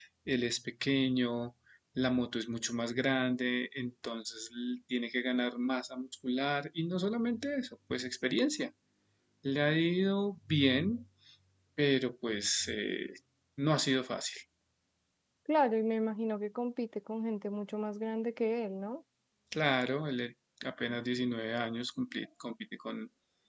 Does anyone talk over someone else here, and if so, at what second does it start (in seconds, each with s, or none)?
none